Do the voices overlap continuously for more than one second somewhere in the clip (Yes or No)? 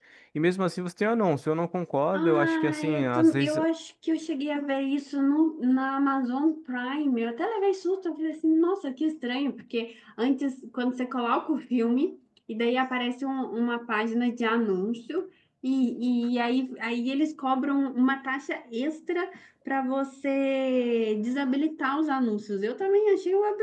Yes